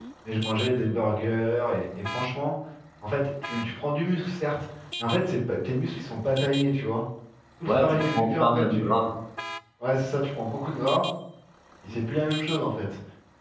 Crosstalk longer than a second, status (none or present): present